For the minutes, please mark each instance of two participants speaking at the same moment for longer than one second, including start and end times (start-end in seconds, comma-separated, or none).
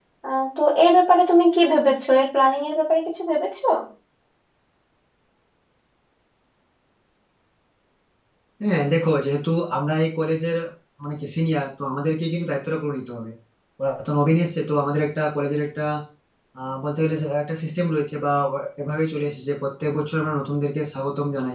none